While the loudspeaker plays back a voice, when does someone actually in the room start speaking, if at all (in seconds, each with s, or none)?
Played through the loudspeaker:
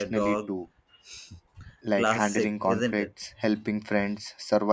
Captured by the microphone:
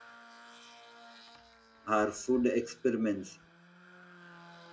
1.9 s